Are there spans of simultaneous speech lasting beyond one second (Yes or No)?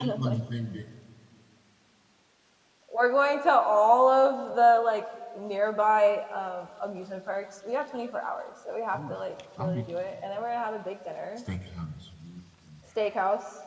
No